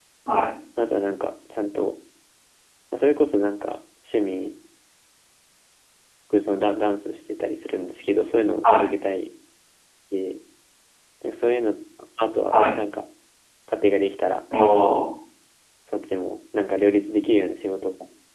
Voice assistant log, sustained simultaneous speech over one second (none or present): none